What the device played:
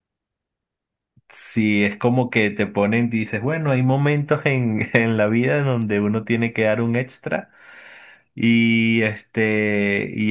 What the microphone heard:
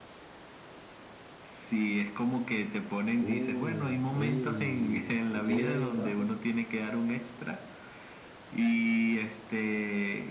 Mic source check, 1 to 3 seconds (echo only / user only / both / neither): echo only